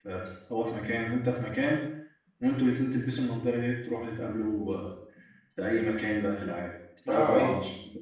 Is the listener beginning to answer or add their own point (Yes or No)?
Yes